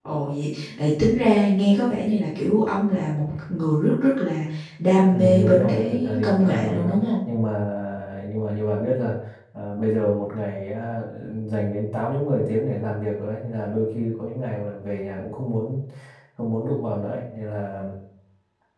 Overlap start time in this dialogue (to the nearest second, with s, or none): 5 s